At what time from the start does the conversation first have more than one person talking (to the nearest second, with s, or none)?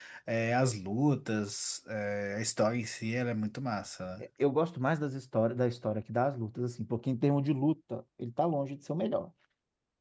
none